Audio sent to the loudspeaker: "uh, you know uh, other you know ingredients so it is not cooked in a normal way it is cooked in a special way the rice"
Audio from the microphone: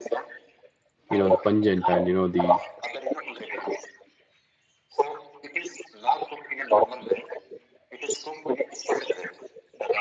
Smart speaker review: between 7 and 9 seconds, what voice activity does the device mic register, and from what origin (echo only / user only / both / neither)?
echo only